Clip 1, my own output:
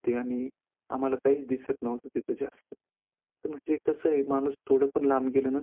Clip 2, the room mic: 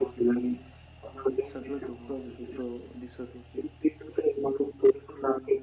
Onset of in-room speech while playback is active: 1.5 s

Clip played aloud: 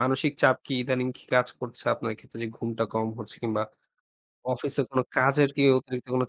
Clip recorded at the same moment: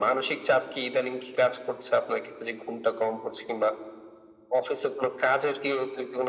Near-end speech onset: none

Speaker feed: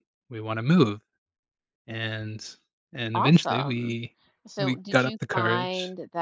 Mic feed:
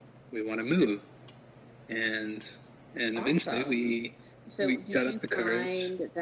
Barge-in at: none

